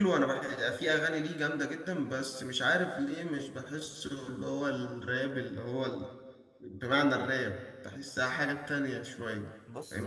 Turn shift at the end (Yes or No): Yes